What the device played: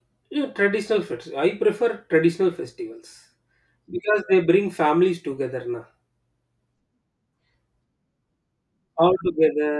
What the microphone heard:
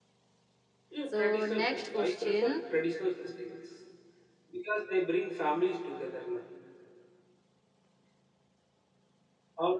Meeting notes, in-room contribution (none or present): present